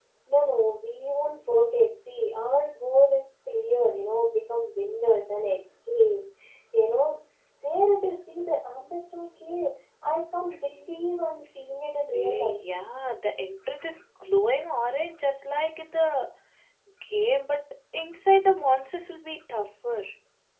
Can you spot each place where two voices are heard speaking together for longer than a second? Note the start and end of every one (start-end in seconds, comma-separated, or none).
none